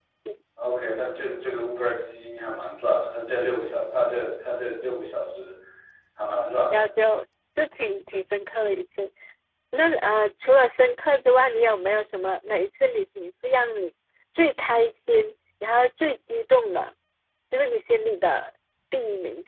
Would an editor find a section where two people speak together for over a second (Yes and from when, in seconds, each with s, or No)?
No